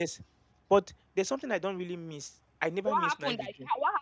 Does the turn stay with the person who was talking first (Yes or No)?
No